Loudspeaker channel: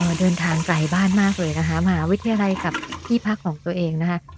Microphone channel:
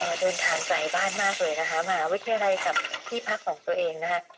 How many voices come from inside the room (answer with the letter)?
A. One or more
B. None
B